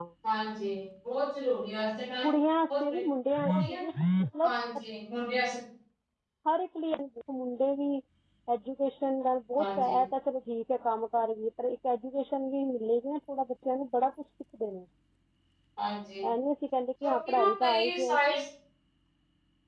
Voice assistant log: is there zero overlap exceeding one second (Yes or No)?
No